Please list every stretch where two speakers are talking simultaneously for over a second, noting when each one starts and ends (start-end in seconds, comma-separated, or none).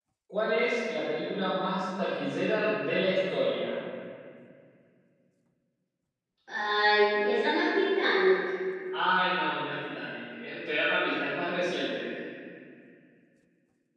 none